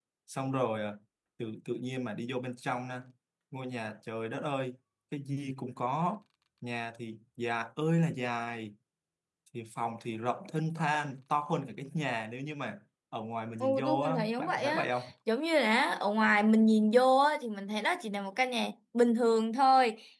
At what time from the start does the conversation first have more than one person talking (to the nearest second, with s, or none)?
14 s